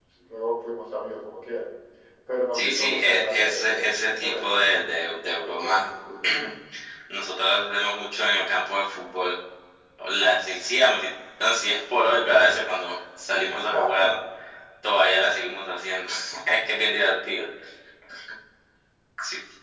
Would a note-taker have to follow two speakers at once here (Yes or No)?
Yes